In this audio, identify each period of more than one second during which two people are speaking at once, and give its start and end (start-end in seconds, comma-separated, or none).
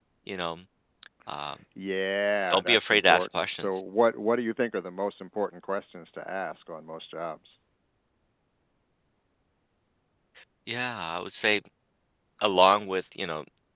2.5-3.8